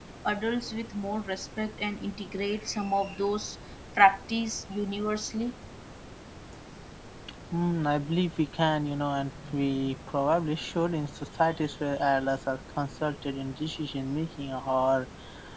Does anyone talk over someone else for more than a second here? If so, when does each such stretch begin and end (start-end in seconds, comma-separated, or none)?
none